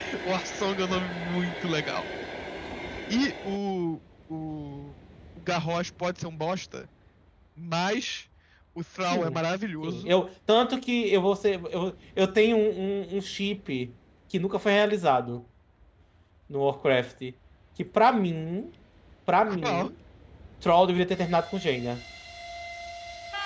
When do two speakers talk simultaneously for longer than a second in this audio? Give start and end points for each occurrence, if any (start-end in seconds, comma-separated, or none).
none